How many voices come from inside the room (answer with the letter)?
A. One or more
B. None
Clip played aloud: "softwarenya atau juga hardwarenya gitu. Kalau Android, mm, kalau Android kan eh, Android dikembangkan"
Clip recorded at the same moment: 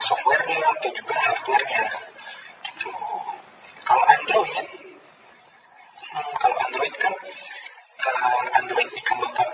B